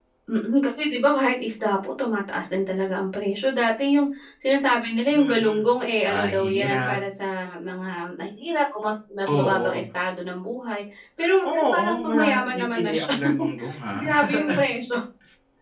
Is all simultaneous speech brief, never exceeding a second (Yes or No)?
No